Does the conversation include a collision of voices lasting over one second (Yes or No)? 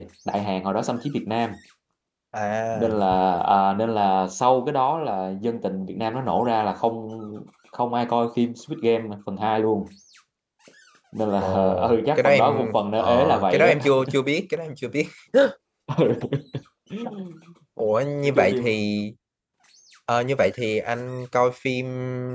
Yes